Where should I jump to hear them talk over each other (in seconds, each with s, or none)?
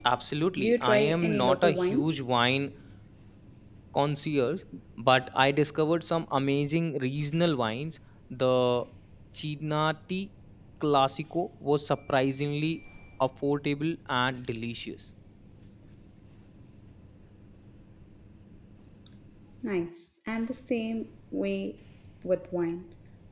0.6 s